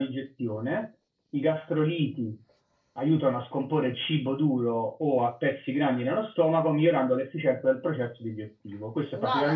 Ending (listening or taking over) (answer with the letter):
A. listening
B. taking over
A